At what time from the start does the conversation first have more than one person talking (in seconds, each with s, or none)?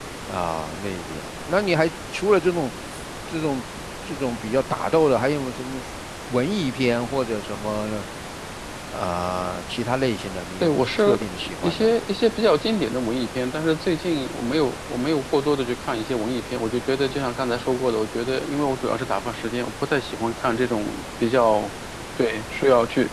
10.6 s